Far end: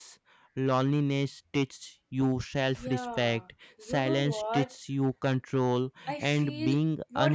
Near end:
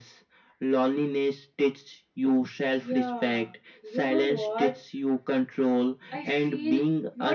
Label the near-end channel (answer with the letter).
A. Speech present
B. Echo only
B